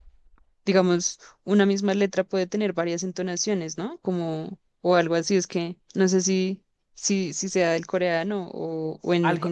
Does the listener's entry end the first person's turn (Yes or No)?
Yes